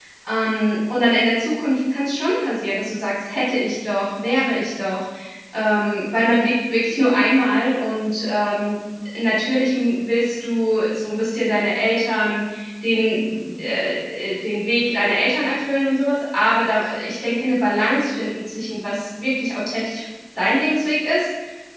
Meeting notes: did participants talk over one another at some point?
No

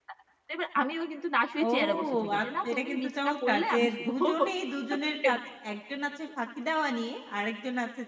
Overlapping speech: Yes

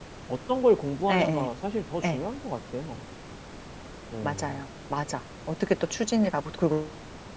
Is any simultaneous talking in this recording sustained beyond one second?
No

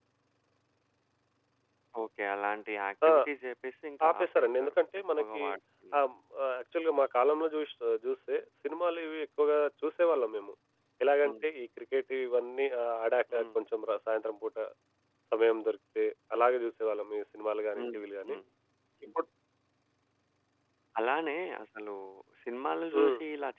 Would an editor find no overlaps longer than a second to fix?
No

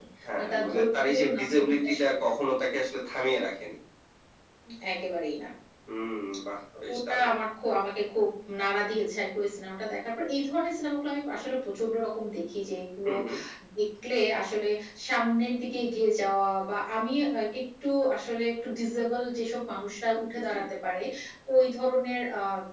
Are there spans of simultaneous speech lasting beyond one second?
Yes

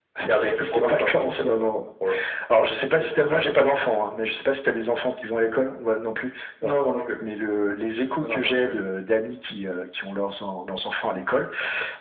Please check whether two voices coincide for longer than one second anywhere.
Yes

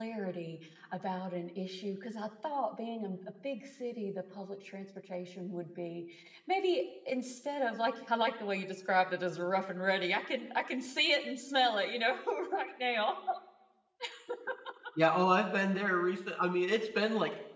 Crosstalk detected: No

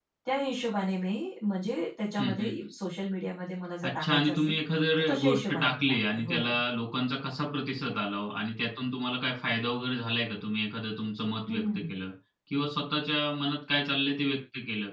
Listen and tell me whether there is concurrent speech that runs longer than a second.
Yes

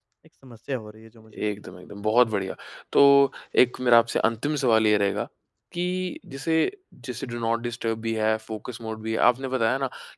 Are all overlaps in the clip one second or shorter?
Yes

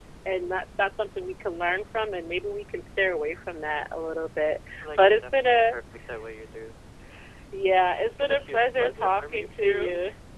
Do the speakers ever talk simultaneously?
Yes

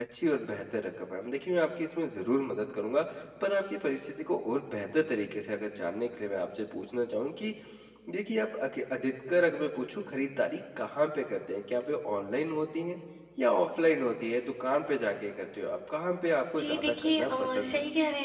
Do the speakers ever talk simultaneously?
Yes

